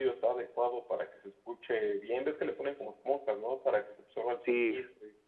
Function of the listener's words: taking over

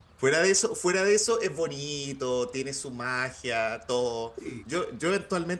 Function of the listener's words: listening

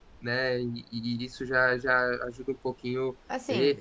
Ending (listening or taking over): taking over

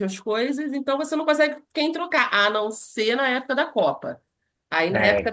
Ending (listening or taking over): listening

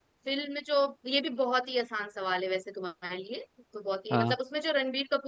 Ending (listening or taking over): listening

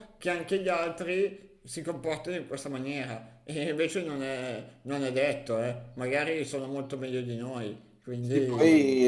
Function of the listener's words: taking over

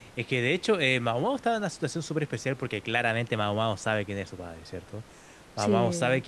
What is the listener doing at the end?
listening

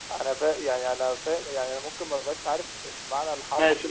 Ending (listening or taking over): taking over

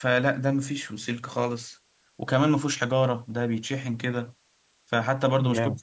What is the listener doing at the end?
listening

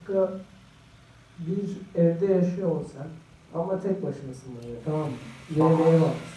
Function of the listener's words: listening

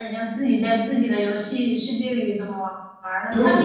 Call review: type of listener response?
taking over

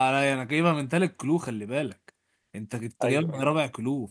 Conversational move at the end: listening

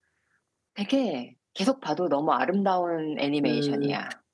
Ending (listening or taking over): taking over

